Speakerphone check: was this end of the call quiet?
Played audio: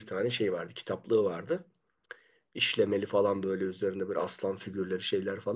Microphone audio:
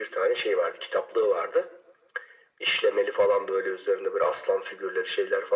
Yes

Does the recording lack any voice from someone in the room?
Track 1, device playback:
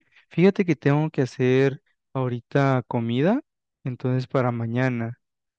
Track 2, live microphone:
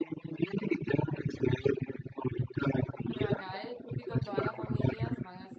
No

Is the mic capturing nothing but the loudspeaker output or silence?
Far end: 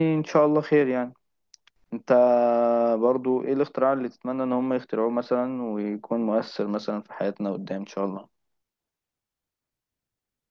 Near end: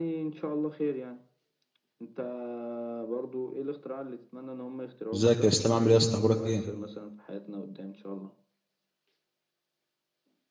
No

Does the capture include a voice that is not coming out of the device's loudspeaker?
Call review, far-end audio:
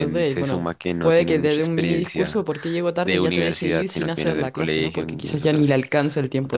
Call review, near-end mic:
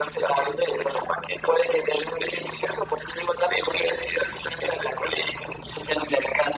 No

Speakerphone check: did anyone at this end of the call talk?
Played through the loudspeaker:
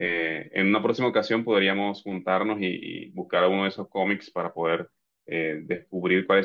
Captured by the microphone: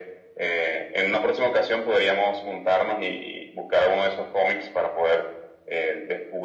No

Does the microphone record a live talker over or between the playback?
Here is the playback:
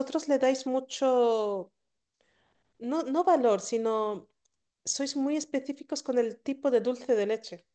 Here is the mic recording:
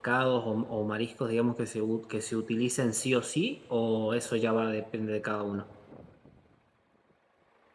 Yes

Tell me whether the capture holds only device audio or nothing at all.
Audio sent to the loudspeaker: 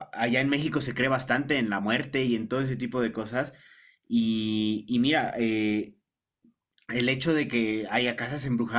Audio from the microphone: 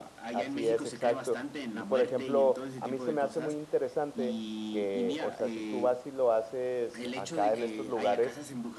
No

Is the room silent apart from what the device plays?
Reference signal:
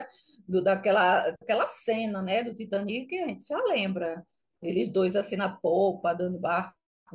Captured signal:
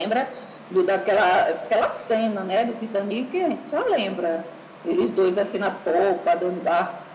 Yes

